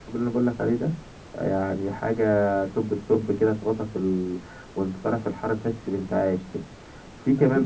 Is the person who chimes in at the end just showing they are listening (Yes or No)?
No